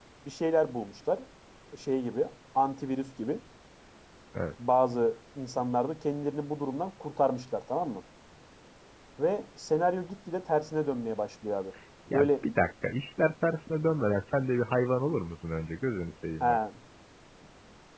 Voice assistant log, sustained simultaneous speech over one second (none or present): none